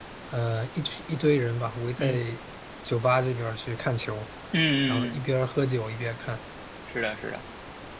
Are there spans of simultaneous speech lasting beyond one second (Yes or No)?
No